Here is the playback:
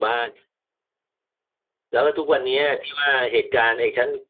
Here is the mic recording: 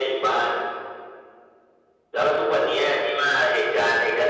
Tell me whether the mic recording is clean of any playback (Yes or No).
No